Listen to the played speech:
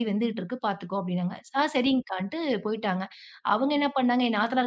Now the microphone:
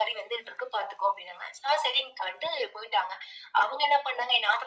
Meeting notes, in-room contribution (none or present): none